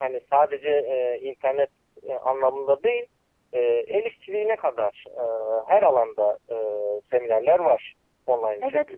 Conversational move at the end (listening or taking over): taking over